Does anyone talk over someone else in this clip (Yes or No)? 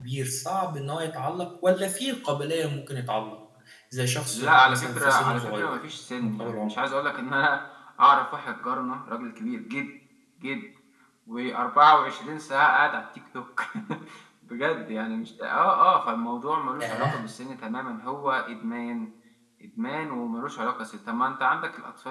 Yes